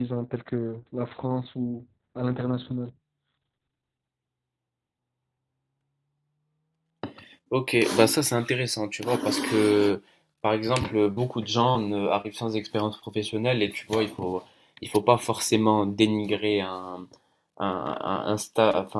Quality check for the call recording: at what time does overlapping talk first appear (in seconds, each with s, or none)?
none